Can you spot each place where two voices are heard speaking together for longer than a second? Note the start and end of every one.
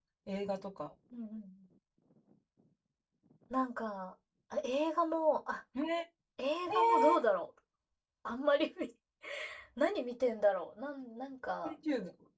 none

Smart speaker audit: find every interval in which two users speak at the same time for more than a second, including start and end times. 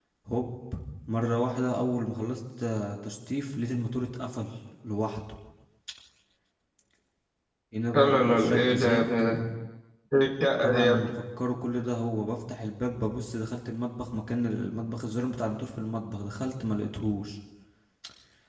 7.9-9.4

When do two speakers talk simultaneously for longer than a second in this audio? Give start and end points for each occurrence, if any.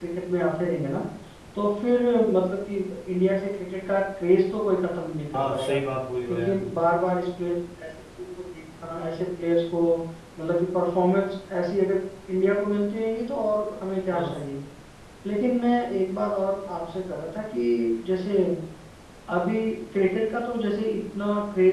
none

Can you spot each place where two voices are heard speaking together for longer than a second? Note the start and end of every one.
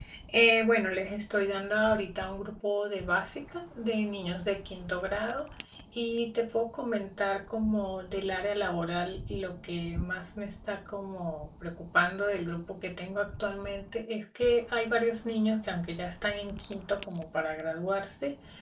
none

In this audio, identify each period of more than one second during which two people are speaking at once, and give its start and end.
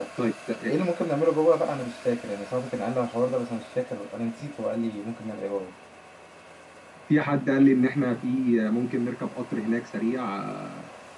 none

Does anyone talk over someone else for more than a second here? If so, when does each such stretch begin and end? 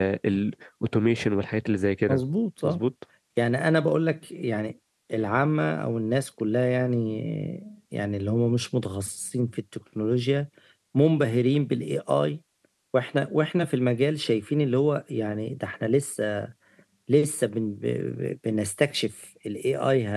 none

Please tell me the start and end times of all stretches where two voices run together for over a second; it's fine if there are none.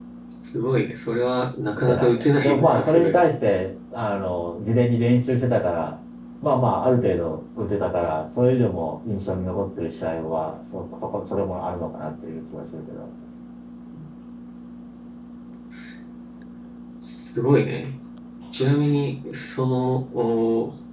1.8-3.2

